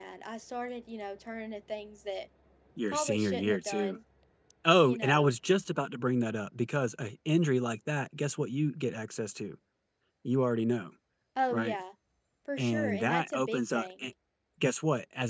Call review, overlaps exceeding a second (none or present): present